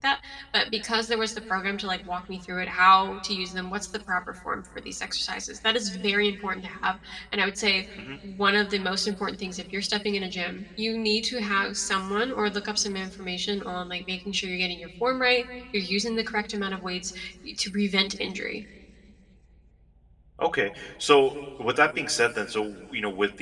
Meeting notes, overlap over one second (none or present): none